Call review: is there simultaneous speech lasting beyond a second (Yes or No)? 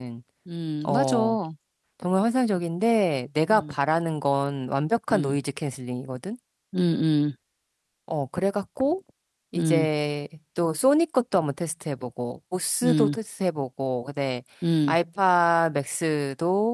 No